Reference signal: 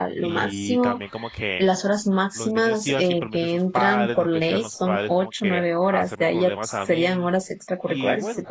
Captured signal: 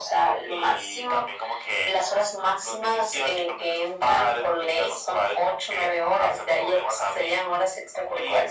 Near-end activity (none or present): none